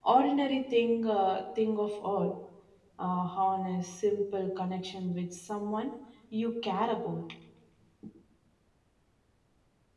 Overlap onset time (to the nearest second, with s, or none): none